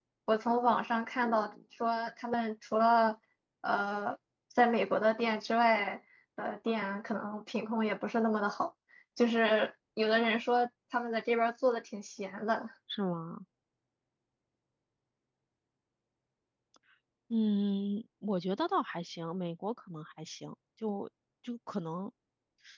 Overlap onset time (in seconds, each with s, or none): none